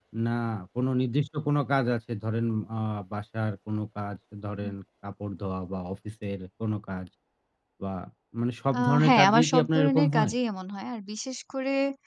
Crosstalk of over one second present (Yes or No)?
Yes